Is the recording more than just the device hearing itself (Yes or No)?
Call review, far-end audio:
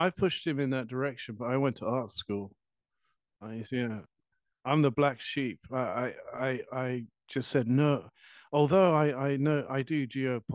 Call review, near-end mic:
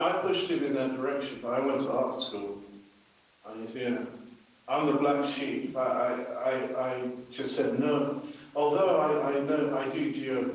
Yes